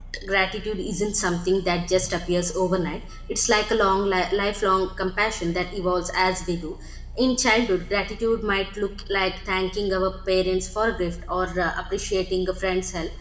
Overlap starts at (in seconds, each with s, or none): none